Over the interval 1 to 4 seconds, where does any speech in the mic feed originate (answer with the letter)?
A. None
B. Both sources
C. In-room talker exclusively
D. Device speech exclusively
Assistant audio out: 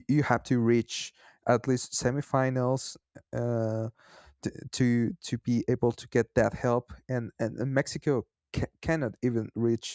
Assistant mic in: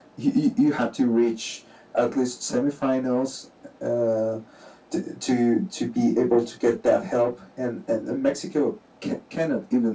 D